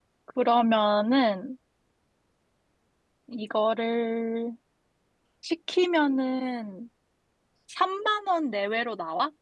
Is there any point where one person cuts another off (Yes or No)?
No